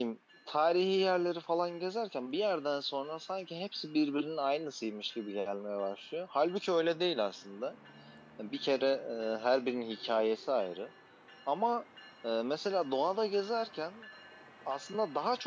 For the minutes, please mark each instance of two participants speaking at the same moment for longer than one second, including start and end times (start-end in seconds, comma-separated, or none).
none